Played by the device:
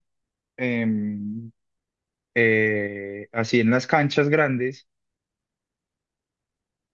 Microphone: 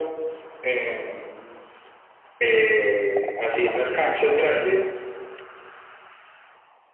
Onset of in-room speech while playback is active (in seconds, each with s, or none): 3.7 s